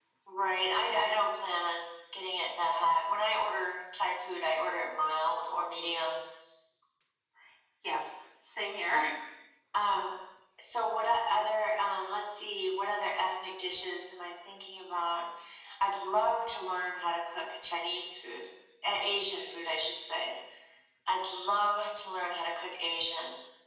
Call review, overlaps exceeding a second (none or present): none